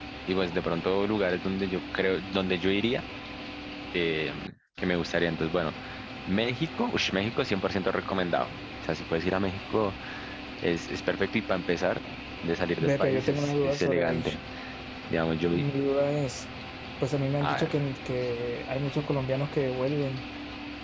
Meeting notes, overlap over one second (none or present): present